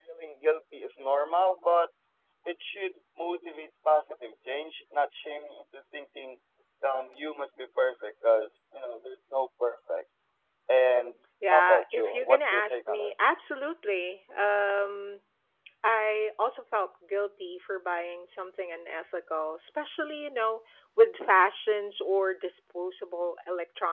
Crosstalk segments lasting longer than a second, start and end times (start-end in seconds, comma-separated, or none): 11.5-13.1